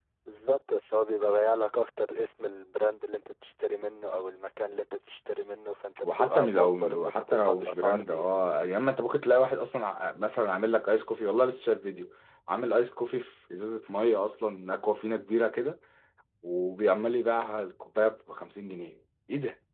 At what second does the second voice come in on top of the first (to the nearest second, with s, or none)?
6 s